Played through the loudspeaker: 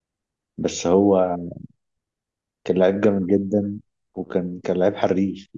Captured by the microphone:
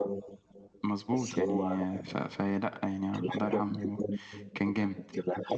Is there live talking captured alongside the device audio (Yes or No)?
Yes